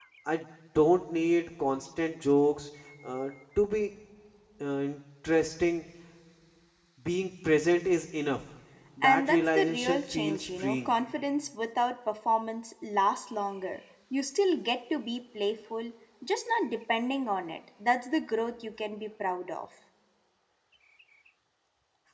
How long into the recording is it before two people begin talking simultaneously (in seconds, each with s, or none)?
9.0 s